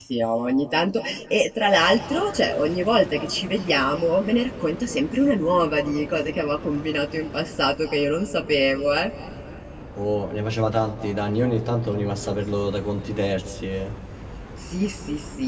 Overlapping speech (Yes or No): No